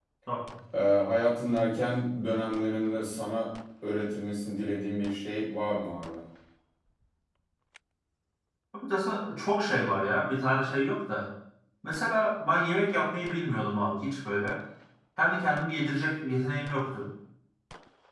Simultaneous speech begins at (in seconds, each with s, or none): none